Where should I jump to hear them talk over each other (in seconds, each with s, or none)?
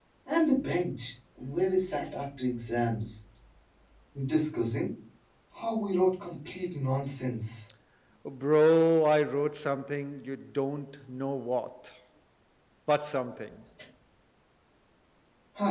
none